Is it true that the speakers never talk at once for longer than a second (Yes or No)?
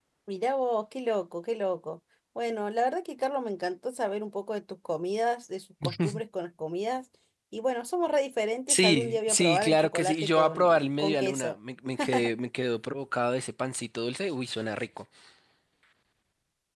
No